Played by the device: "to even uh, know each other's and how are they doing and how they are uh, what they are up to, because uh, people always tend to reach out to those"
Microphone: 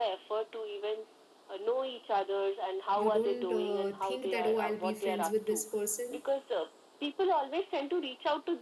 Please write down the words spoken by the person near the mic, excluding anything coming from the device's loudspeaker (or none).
you don't uh, think that oh i'll be friends with this person